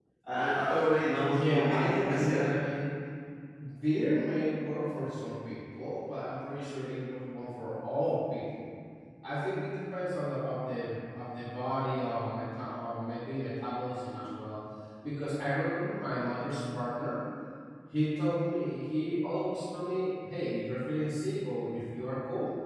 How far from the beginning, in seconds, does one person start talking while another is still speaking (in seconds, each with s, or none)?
1.2 s